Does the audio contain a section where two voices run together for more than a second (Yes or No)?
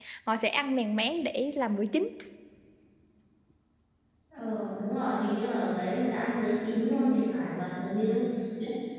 No